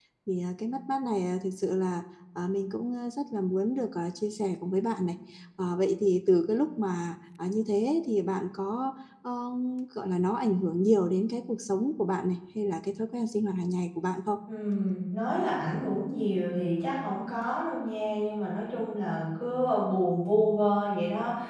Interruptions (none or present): none